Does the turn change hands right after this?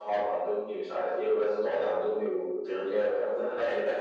Yes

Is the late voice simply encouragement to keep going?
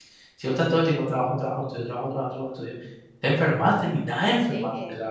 No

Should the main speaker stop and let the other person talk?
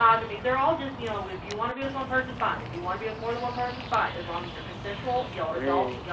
No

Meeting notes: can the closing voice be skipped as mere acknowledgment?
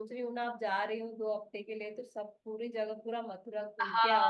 No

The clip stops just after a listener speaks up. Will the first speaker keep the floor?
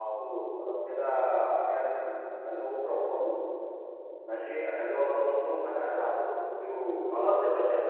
No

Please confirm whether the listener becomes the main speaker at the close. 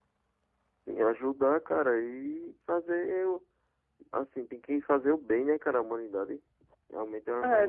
Yes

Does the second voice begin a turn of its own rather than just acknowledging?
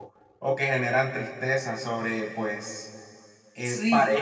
No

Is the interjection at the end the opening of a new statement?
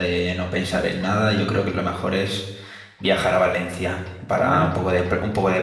No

